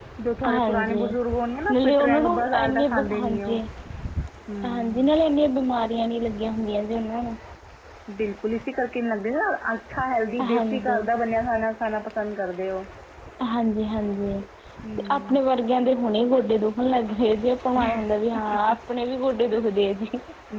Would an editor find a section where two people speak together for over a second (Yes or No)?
Yes